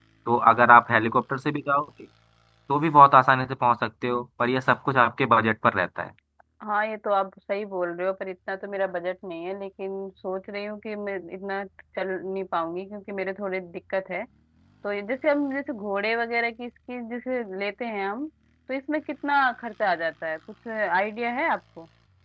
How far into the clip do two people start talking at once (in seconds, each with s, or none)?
none